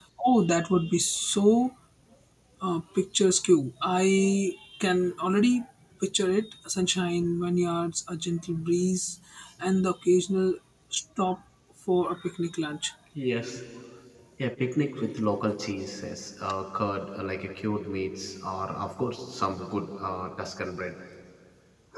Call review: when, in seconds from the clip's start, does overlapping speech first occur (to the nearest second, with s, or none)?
none